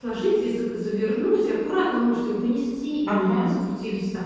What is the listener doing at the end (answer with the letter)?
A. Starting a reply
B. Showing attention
B